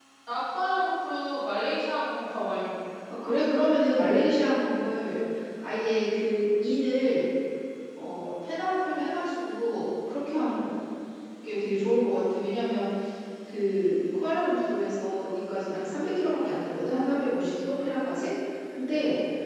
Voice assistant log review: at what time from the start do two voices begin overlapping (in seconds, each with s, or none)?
none